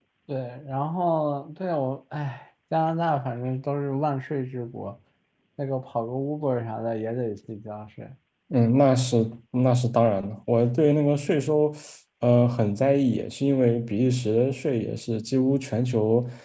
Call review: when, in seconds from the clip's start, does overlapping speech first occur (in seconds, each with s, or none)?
none